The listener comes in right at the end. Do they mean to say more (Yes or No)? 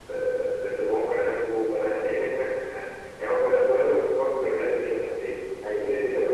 No